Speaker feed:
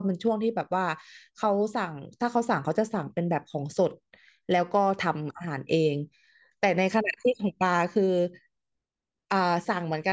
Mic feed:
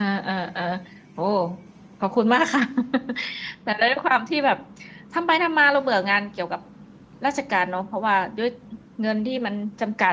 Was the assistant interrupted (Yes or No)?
Yes